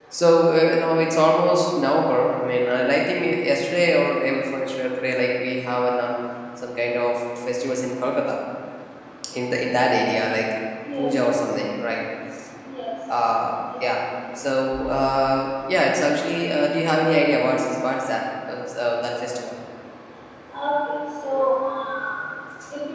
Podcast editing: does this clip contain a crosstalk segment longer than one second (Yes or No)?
No